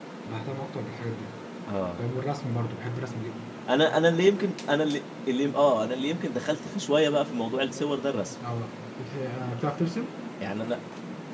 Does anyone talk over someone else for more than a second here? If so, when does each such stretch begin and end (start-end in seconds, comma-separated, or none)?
none